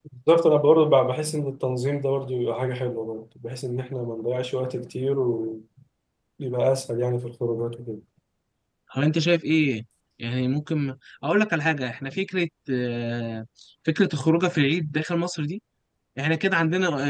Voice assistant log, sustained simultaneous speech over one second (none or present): none